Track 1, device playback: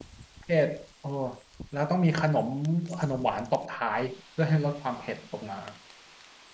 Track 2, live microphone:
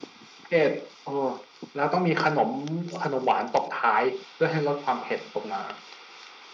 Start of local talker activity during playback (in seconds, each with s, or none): none